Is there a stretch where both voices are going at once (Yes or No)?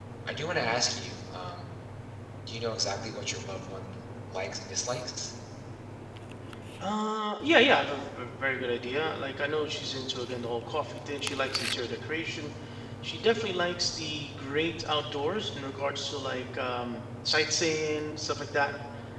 No